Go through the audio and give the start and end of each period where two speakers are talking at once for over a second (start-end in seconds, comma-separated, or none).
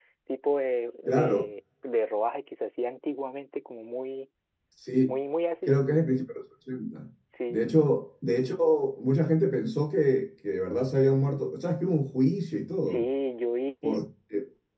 none